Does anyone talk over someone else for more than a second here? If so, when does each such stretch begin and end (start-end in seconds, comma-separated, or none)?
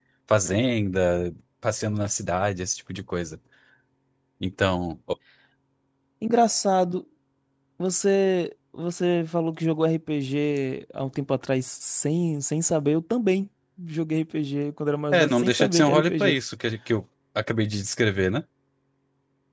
15.1-16.4